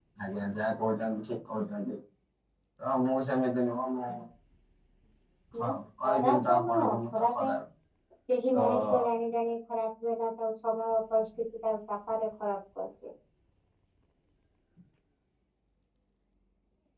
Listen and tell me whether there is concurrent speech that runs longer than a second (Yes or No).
Yes